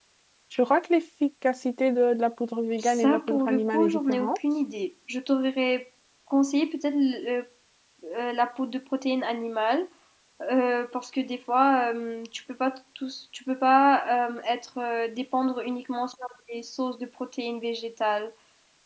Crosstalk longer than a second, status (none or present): present